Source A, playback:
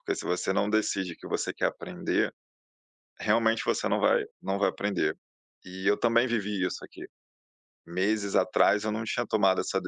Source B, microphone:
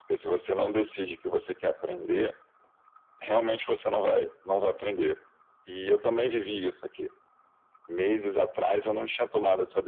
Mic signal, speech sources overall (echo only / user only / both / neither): echo only